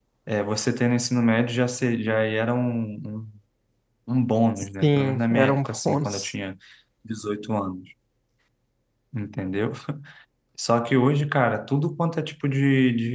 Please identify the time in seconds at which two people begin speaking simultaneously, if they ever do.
4.8 s

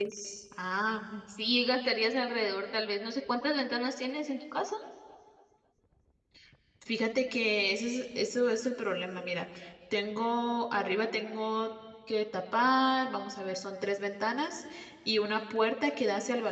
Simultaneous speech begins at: none

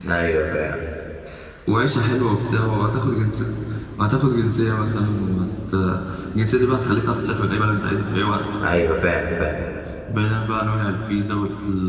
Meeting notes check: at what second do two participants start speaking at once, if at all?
none

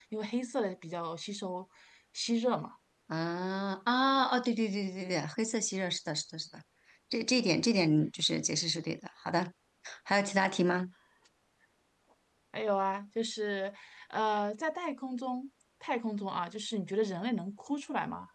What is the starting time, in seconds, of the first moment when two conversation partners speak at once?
none

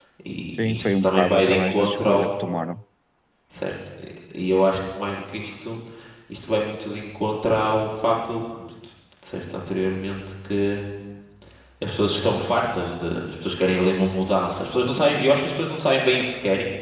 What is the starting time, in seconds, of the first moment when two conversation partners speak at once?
0.6 s

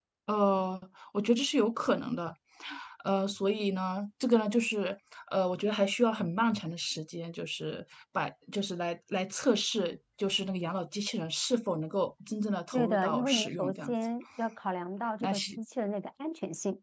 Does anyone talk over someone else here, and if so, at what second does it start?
12.7 s

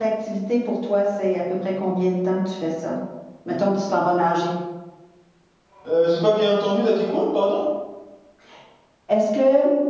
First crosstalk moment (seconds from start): none

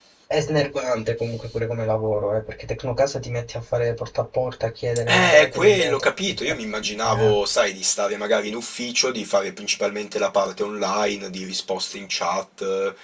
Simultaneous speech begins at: 5.1 s

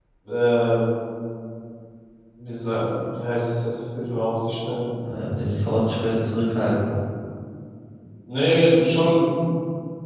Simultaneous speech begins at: none

